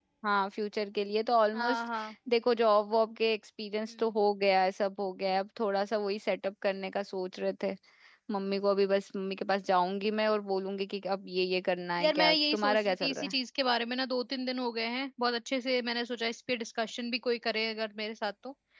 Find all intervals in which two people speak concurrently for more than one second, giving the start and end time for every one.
12.0-13.3

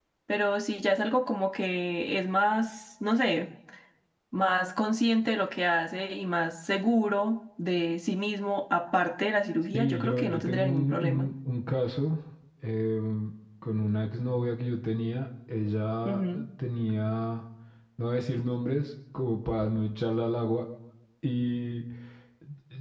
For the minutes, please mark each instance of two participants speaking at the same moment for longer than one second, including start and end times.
9.7-11.3

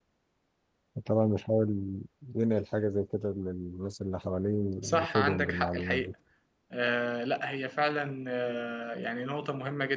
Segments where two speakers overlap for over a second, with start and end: 4.8-6.1

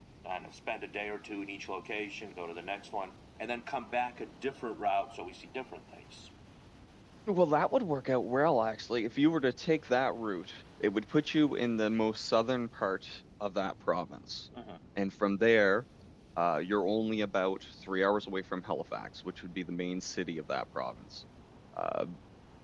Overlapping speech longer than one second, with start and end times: none

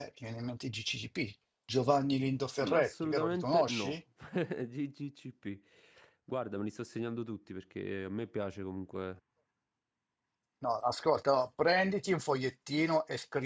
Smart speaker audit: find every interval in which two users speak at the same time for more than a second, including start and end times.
2.6-4.0

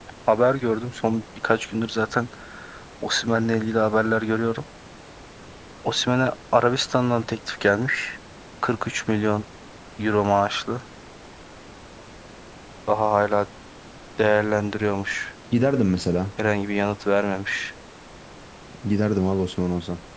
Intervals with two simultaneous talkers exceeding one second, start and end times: none

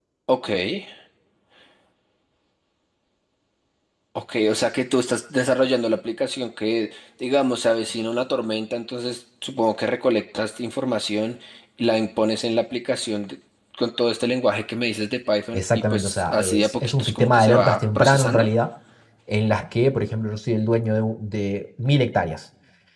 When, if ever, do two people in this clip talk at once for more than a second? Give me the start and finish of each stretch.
15.5-18.5

